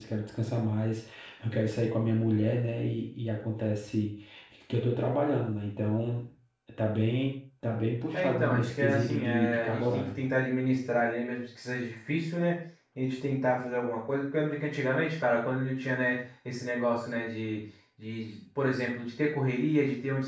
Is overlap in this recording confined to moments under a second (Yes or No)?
No